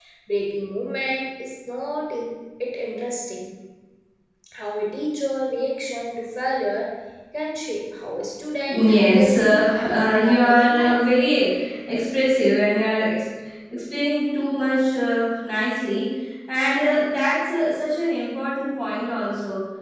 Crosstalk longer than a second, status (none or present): present